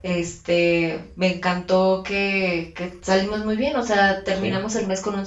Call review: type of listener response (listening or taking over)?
listening